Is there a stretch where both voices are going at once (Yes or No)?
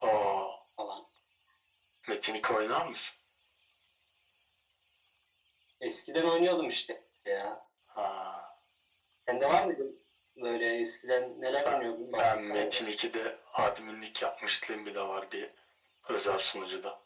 Yes